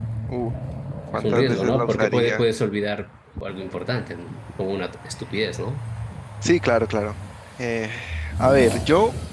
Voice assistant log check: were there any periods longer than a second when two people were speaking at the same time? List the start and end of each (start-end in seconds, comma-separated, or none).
1.1-2.4